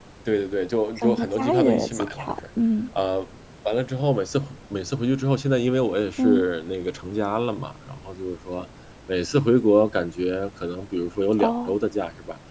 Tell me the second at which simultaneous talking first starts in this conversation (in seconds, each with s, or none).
1.0 s